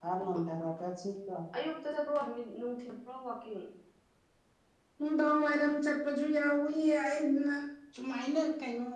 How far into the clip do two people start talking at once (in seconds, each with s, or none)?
none